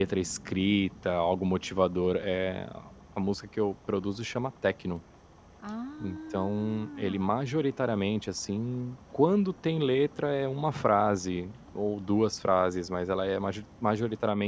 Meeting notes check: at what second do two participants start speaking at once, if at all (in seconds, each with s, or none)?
6.0 s